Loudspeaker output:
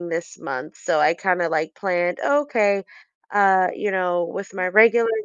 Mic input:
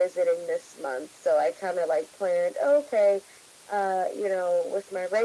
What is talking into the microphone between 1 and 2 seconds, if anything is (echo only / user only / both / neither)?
echo only